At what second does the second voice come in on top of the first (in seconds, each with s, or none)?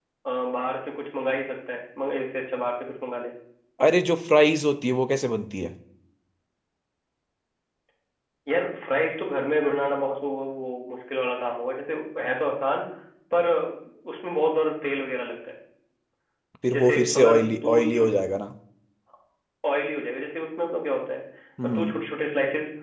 16.7 s